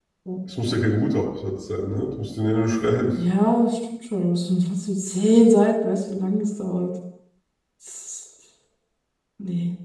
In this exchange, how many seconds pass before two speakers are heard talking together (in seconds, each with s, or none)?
none